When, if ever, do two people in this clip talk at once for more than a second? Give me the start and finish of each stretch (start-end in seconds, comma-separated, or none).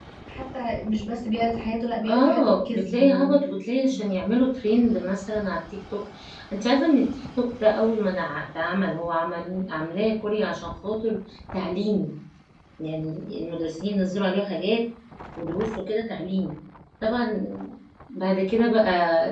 2.0-3.3